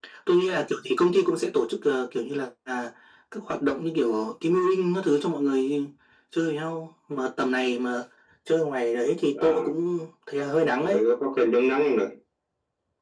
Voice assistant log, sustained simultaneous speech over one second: none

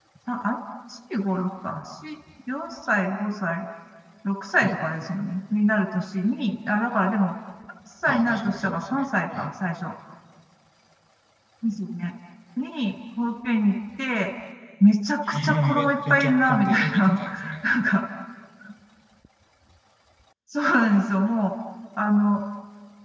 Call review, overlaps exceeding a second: present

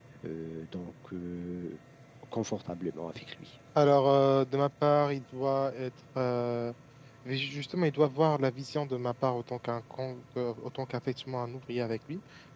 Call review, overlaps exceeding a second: none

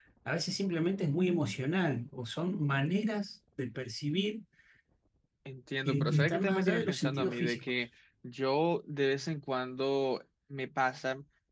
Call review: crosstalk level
present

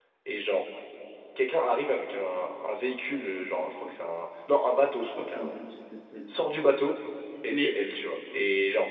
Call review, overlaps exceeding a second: none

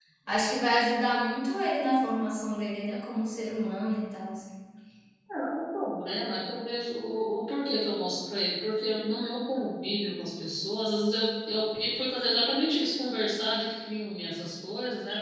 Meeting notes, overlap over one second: none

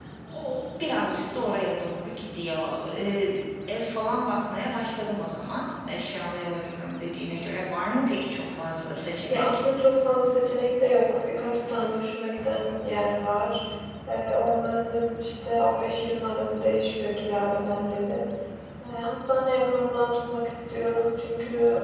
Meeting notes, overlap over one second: none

